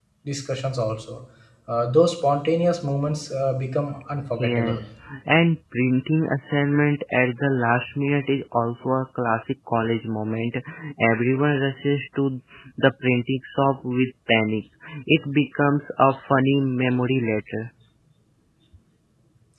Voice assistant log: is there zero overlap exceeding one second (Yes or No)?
Yes